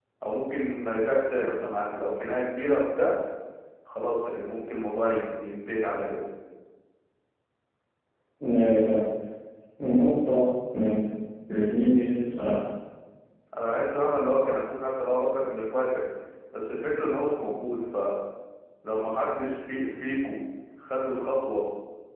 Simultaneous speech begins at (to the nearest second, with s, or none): none